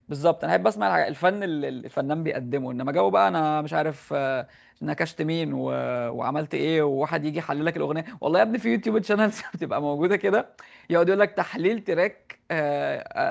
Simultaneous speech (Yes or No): No